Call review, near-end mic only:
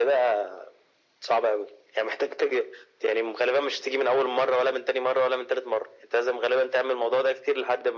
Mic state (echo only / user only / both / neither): echo only